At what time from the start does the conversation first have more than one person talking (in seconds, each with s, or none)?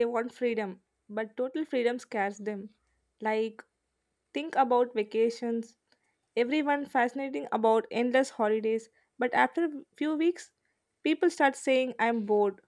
none